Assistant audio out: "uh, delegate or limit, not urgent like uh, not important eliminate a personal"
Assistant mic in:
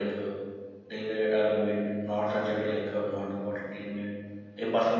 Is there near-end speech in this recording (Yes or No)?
No